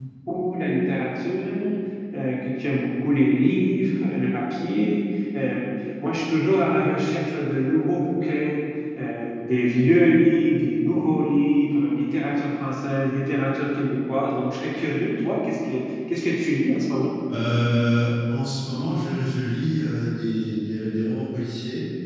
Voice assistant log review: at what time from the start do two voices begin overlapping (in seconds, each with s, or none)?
none